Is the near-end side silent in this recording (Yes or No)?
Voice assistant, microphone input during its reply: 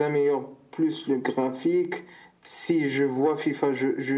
Yes